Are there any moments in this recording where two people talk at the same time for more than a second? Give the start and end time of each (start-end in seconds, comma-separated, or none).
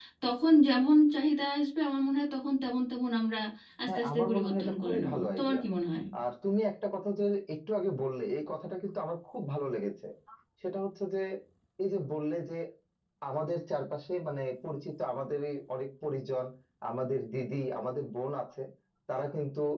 3.9-5.6